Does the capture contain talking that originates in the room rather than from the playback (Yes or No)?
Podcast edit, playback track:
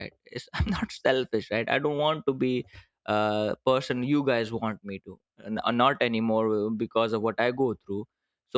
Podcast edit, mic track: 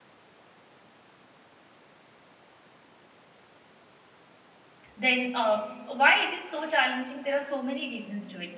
Yes